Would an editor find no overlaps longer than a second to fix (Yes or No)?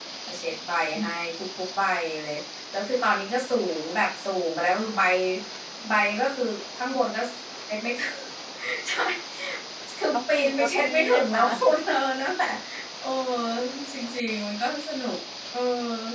No